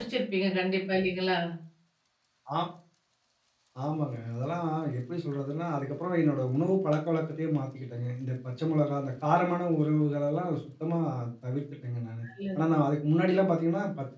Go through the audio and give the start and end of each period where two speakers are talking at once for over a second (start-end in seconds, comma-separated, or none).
none